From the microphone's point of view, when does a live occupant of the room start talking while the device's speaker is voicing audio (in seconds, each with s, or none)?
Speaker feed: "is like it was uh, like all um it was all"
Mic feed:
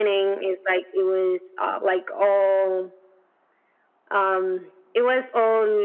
none